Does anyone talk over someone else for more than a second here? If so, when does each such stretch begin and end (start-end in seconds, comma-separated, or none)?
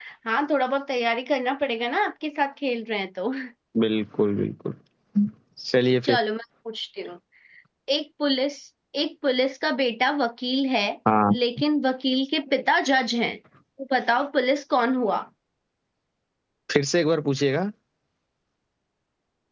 none